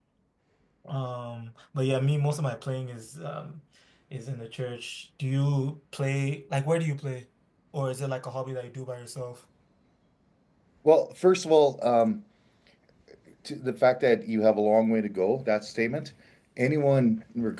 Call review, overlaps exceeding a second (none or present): none